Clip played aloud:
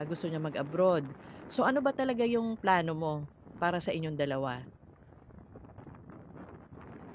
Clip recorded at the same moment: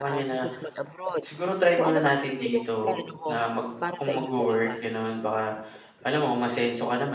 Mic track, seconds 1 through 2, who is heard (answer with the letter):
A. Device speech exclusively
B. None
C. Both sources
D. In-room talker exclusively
C